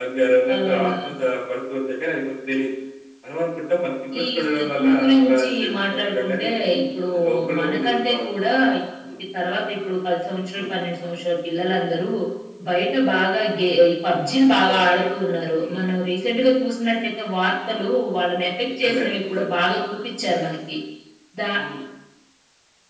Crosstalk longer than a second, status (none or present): present